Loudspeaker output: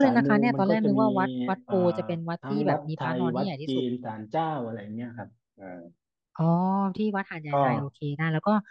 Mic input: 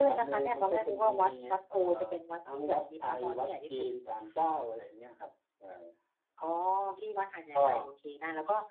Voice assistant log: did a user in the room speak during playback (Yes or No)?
No